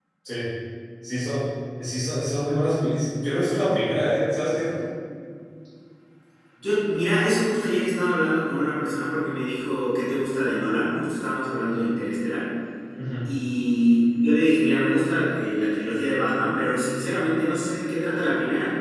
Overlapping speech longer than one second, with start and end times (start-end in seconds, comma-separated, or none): none